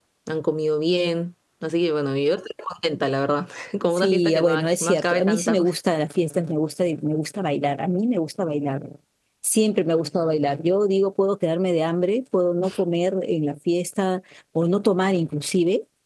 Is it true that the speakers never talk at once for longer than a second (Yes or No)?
No